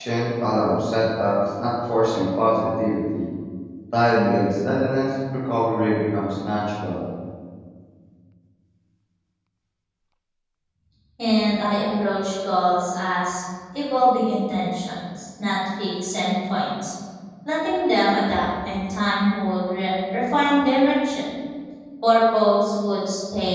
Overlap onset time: none

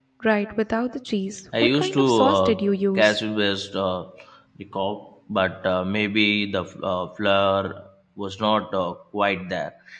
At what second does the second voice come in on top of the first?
1.5 s

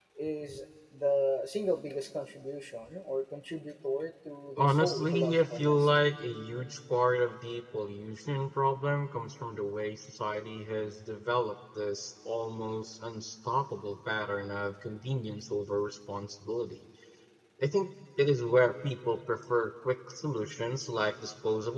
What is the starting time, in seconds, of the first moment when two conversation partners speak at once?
4.6 s

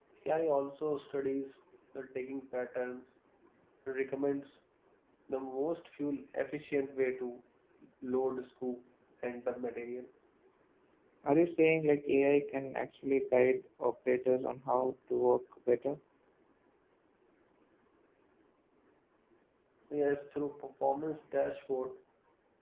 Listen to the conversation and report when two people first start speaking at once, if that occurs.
none

